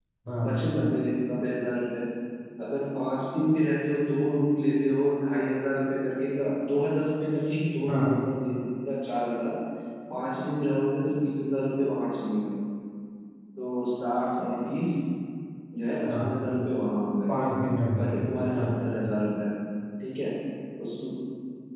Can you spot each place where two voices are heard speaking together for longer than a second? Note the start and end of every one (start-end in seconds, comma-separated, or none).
none